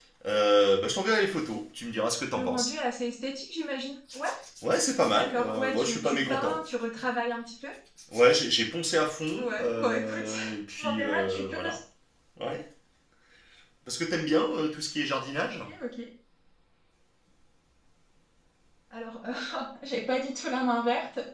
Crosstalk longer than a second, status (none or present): present